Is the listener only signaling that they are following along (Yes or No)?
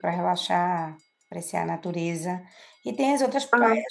Yes